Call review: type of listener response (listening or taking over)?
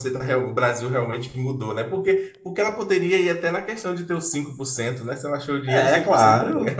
taking over